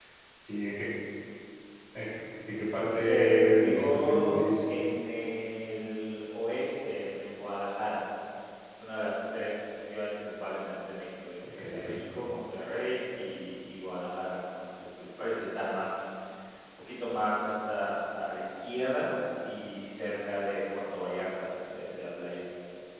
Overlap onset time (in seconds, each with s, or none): 3.0 s